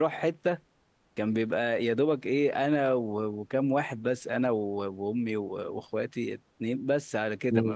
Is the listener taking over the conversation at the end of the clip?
No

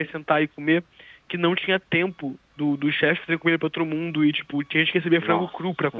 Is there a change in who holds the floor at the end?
Yes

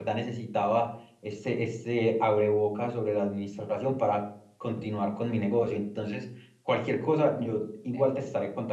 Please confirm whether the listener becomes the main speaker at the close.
No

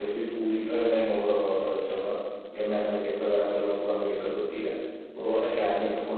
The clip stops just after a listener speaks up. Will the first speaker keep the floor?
Yes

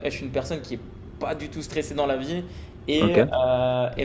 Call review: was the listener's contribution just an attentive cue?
Yes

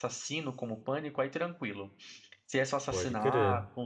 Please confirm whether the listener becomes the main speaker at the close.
No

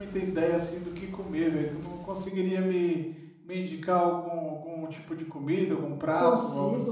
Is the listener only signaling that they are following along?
No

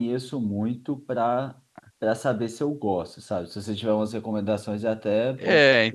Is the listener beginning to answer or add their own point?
Yes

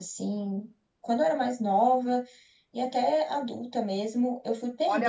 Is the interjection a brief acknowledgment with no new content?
No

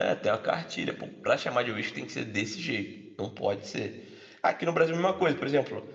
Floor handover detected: No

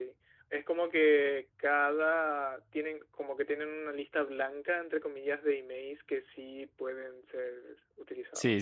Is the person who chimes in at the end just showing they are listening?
No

